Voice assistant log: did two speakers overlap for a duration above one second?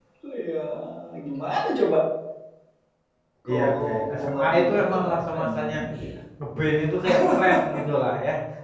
Yes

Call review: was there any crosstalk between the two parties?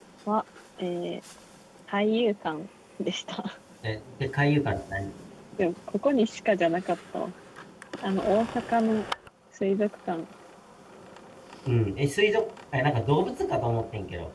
No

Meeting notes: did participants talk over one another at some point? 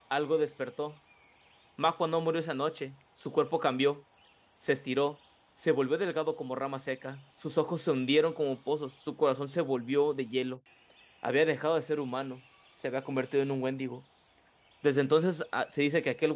No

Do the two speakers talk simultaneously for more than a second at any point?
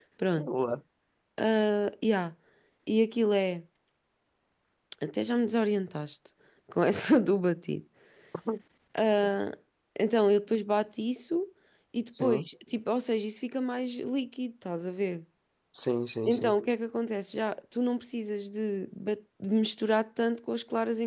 No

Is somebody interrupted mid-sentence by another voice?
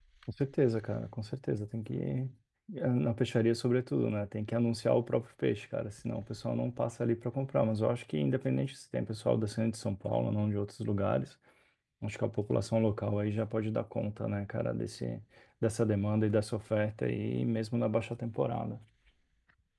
No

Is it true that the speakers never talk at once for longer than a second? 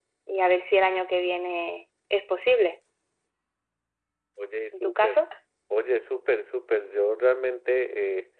Yes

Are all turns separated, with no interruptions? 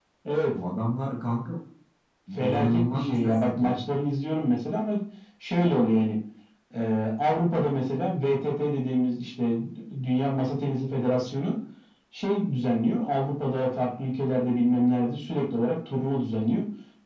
No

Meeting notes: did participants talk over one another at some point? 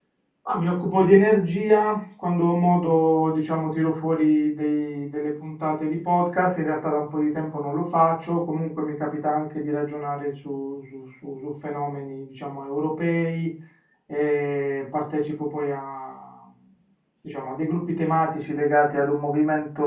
No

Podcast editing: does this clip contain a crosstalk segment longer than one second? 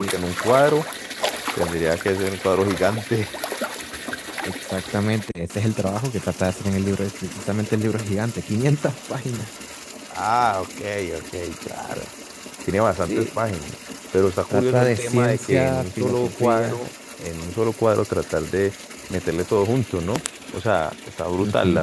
Yes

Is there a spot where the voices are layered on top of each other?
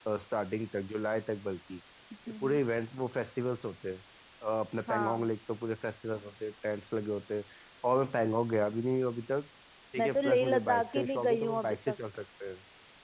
Yes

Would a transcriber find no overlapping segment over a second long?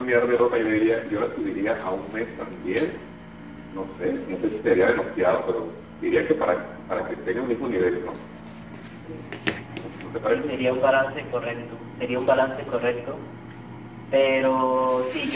Yes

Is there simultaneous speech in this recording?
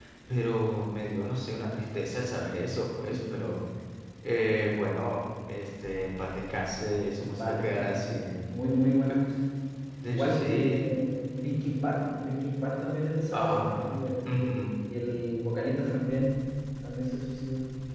Yes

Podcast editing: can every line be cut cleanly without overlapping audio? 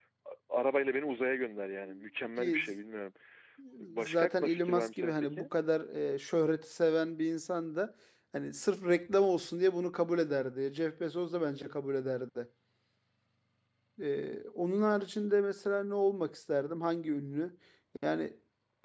No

